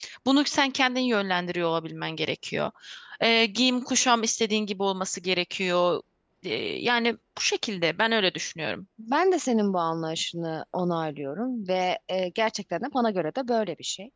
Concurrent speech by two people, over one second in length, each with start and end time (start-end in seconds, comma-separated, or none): none